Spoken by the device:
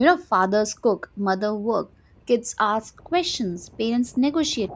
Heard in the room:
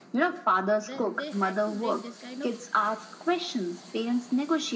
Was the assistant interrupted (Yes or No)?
Yes